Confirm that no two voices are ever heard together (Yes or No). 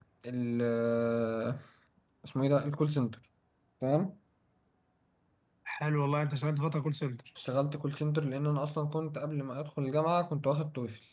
Yes